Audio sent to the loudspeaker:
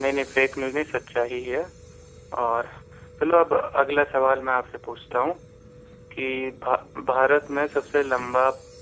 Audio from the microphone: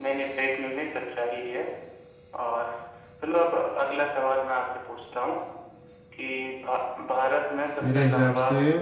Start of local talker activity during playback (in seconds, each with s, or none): 7.8 s